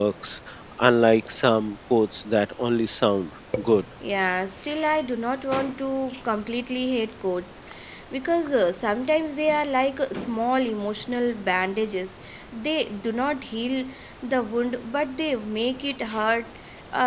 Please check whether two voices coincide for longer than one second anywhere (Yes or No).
No